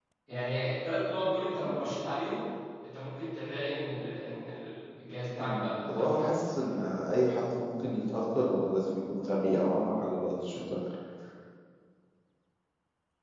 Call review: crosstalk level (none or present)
present